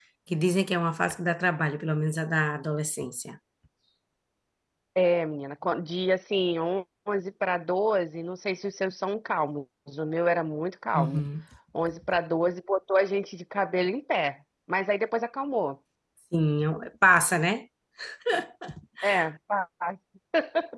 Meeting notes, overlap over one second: none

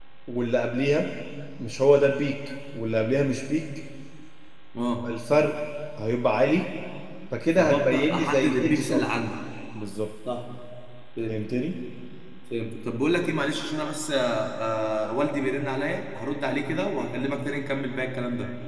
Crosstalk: present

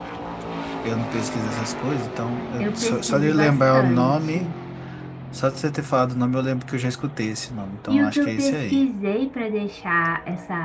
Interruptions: present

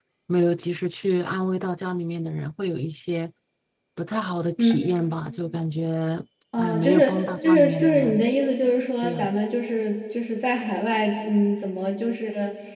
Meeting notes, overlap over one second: present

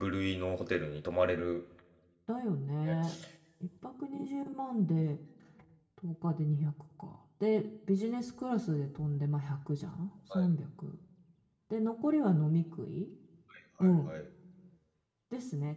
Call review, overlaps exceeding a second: none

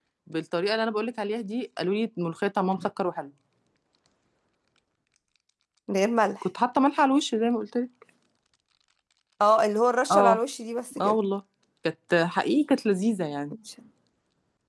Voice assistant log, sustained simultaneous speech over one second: none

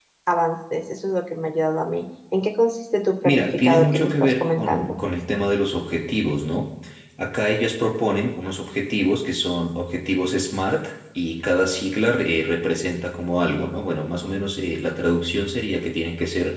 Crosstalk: present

